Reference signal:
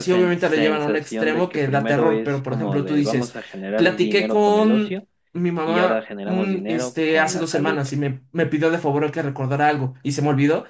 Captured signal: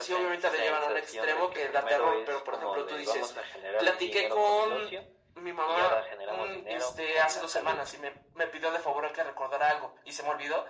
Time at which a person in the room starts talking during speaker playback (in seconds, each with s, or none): none